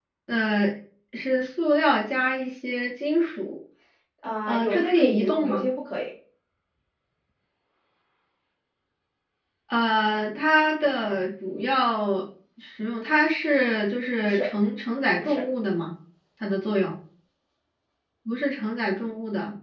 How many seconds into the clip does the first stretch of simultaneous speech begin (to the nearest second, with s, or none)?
4 s